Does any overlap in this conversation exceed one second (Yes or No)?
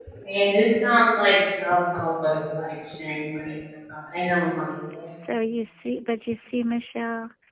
No